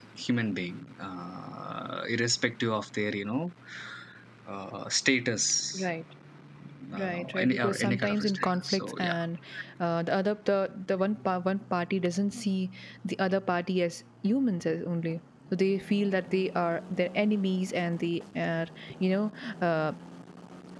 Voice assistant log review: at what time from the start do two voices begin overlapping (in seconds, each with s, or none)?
7.0 s